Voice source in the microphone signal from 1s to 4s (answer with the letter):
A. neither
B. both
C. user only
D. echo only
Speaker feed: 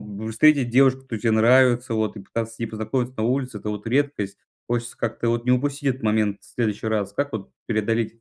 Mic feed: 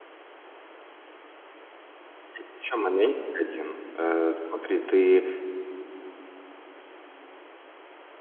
C